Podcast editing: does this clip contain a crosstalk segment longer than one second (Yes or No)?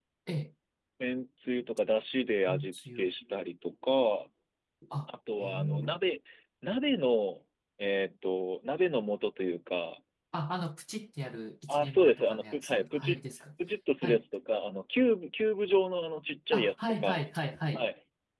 Yes